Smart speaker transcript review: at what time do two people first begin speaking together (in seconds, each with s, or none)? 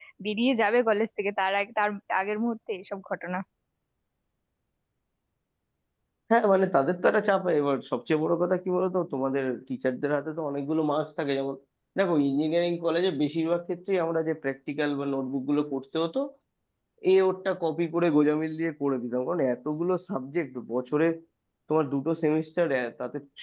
none